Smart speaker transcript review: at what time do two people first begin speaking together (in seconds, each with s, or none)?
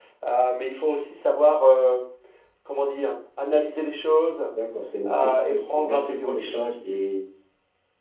5.1 s